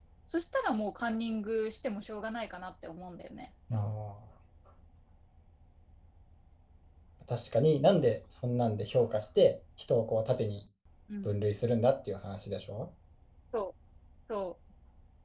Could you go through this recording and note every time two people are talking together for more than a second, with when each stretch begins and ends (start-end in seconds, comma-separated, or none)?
none